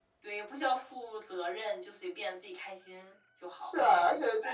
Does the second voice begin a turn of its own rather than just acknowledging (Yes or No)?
Yes